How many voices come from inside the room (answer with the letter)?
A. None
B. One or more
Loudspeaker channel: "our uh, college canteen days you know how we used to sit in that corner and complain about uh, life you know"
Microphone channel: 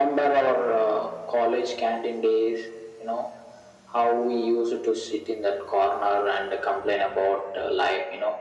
A